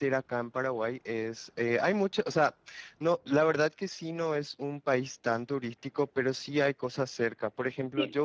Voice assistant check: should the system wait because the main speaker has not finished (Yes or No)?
No